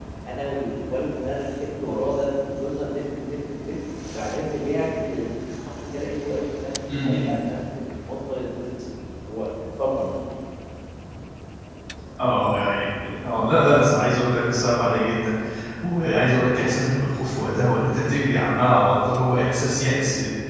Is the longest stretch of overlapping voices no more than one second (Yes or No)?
Yes